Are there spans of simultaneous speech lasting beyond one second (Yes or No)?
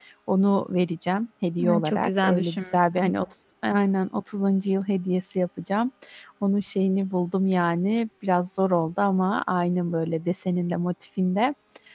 Yes